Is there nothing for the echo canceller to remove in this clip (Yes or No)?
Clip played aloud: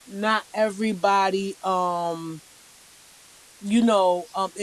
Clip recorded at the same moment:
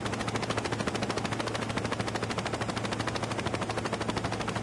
Yes